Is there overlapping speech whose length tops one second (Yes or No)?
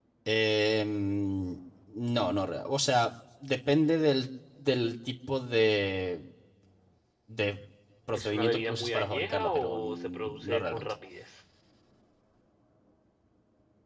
Yes